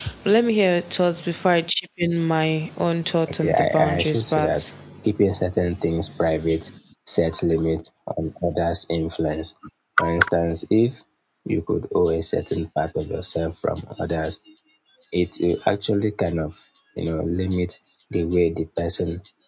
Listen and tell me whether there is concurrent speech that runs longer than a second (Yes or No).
Yes